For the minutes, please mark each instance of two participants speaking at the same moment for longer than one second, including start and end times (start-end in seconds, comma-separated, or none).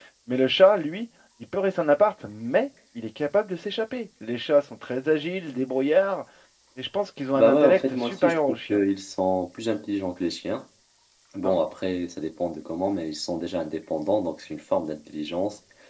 7.4-8.8